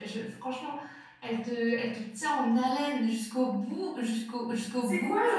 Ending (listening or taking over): taking over